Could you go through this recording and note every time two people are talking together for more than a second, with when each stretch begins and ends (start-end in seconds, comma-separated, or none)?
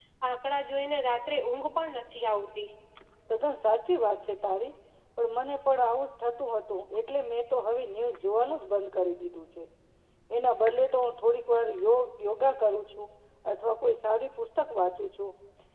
none